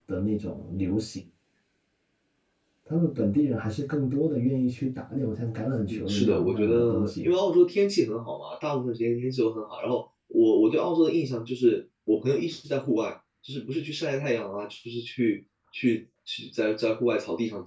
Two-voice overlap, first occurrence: 6 s

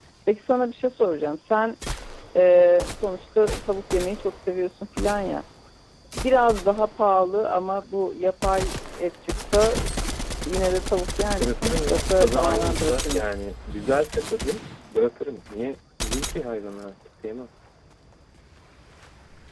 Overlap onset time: 11 s

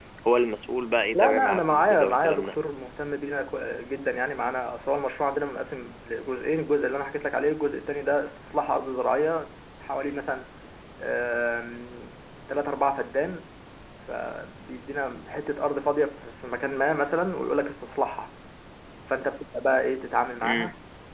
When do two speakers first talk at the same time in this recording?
1 s

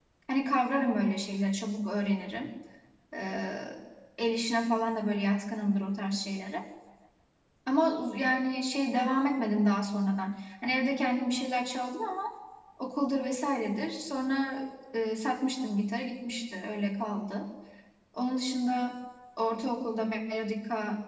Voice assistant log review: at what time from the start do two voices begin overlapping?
none

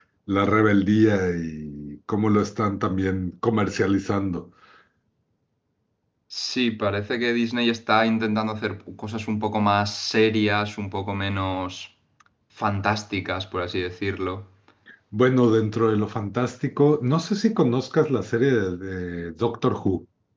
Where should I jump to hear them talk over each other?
none

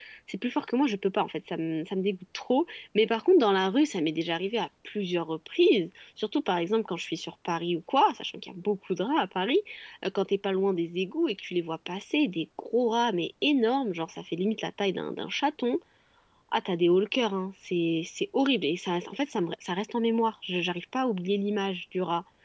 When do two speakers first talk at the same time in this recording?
none

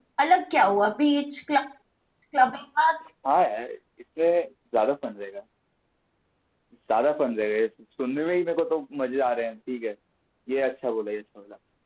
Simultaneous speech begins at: none

